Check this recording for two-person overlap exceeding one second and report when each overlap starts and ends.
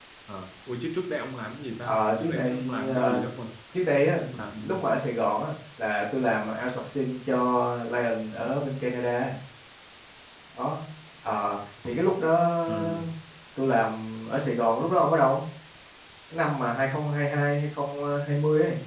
1.8-3.2

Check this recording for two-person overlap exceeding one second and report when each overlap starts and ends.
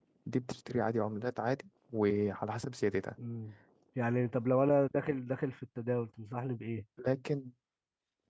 none

